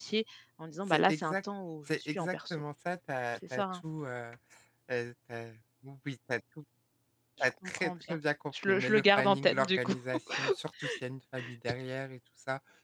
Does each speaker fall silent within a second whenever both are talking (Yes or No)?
No